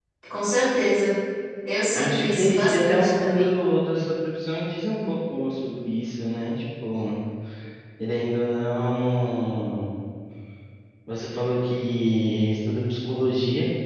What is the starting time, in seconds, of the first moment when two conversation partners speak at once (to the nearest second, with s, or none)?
2 s